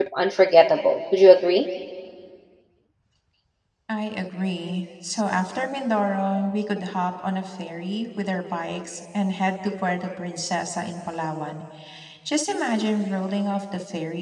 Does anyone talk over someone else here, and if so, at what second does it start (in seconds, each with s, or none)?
none